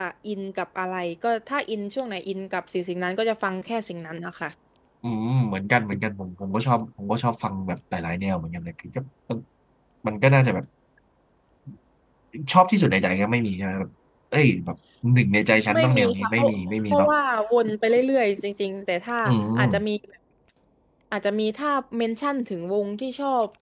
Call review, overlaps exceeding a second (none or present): present